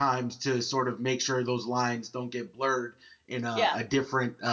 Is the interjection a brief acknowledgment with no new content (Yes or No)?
Yes